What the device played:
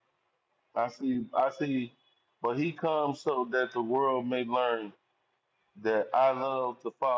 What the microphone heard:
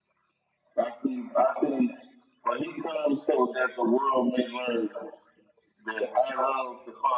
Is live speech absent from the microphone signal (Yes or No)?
Yes